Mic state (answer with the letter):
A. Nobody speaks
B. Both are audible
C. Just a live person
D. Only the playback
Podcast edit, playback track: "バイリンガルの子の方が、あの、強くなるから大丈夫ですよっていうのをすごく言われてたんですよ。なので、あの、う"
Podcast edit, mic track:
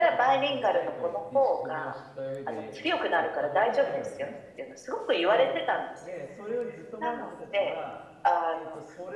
B